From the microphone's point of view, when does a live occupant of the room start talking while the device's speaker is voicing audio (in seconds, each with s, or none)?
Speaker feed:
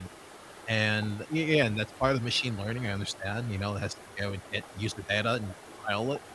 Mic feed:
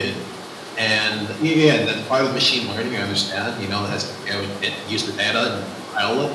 none